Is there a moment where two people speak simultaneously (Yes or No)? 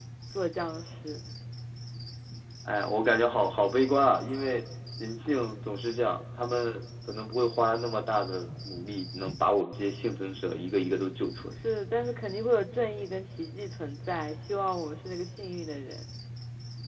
No